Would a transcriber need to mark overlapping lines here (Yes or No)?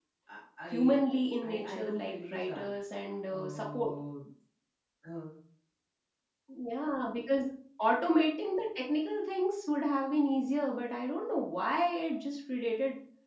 Yes